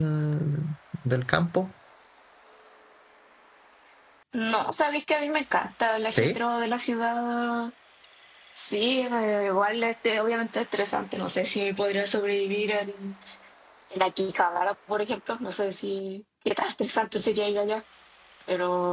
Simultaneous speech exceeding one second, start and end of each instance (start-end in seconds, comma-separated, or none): none